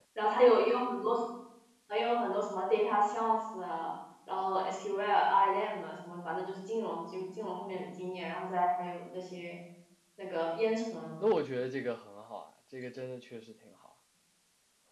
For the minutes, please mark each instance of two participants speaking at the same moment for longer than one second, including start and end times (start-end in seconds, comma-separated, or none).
none